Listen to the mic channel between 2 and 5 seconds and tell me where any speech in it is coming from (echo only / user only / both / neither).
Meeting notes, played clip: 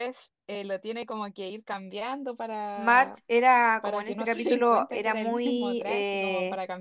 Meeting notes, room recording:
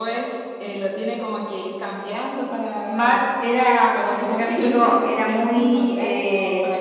echo only